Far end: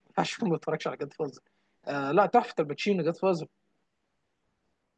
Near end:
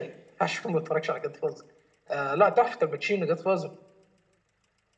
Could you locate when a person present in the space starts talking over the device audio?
none

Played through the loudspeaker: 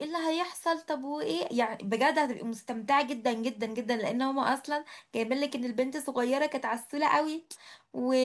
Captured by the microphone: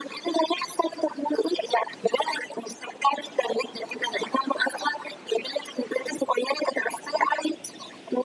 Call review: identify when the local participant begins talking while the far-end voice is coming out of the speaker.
none

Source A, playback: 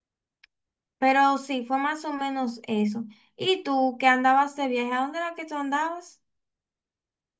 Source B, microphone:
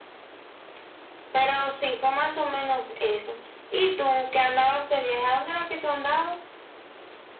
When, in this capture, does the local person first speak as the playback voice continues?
none

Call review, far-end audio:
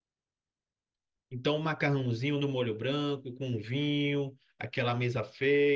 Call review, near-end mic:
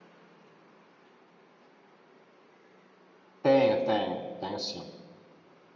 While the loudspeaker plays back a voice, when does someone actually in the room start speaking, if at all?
3 s

